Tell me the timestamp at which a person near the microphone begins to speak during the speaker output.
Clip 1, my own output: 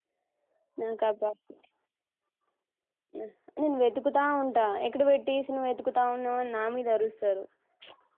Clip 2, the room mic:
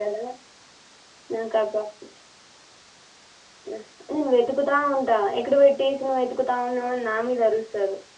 none

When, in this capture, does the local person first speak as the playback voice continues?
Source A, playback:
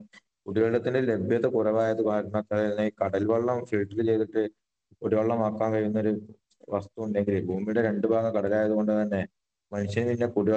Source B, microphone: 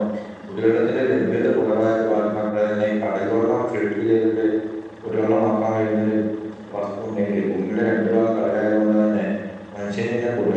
none

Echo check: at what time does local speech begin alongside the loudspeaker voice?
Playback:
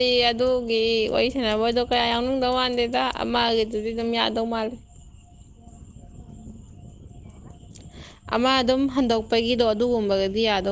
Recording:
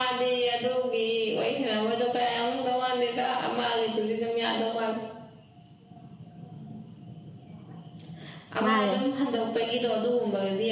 8.6 s

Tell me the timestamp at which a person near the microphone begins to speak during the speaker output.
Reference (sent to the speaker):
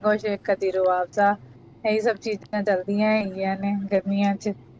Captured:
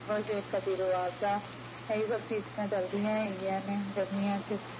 none

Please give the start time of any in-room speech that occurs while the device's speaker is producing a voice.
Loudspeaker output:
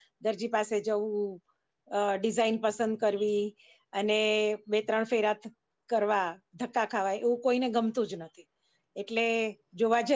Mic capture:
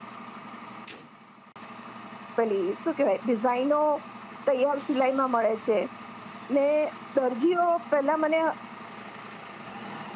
2.4 s

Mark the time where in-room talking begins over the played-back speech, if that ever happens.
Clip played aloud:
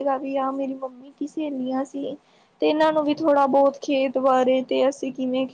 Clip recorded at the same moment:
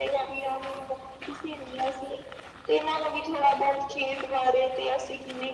none

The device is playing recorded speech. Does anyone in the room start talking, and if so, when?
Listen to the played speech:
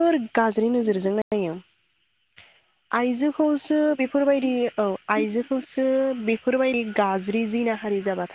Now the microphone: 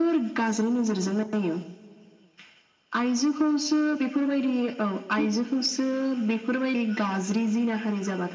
none

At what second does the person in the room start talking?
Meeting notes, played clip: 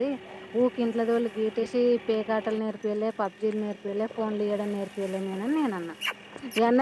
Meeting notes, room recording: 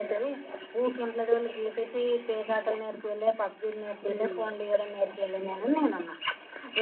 4.1 s

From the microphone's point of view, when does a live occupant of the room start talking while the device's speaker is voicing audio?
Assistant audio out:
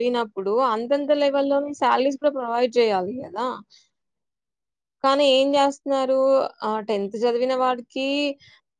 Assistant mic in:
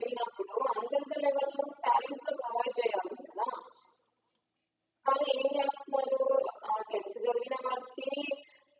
none

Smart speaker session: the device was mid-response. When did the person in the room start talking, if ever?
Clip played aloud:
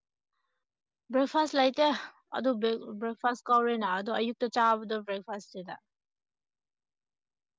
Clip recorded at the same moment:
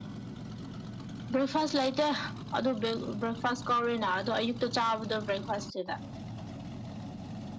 none

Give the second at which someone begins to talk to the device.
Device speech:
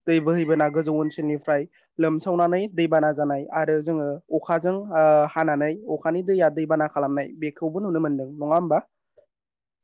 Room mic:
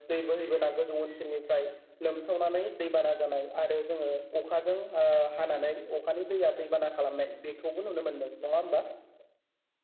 none

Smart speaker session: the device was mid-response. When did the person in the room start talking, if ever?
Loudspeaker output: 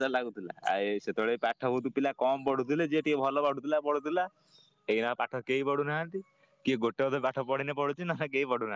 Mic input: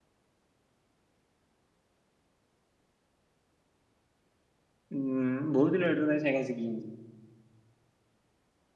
5.0 s

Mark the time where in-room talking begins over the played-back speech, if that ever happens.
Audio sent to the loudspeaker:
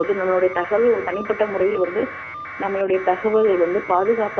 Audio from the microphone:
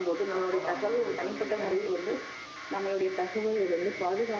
0.4 s

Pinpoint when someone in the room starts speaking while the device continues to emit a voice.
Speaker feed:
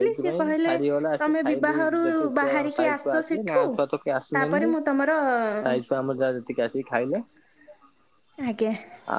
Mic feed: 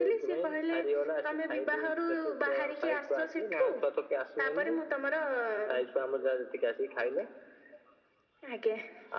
none

